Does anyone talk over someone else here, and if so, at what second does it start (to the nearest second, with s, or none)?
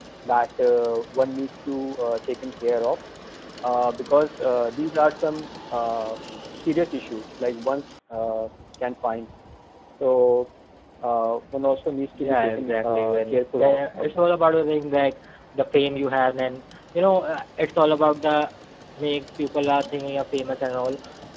12 s